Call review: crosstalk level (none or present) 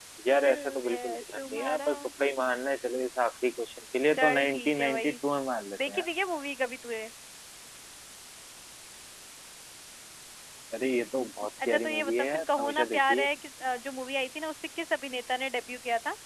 present